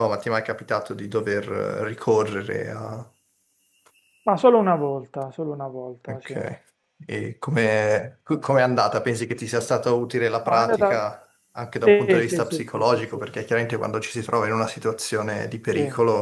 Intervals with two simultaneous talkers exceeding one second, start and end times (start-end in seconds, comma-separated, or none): 11.8-13.2